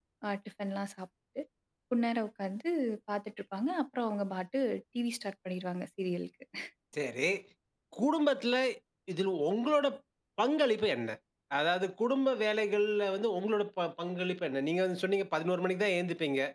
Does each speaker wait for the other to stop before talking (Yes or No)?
Yes